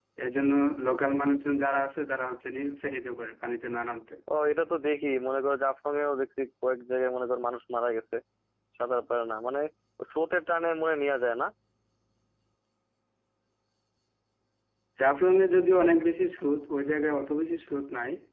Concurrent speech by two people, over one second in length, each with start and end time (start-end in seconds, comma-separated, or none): none